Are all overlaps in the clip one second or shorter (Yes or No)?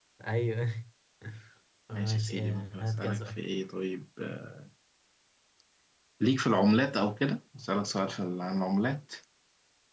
No